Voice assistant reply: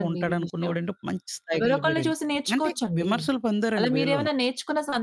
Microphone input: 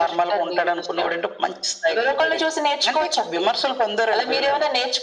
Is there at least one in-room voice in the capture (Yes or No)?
No